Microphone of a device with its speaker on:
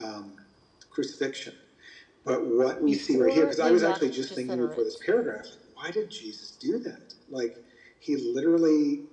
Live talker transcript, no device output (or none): Before they left Gennesaret,